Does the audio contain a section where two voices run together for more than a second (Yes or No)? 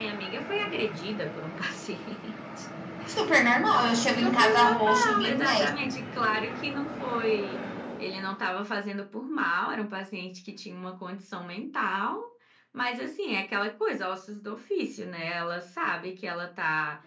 Yes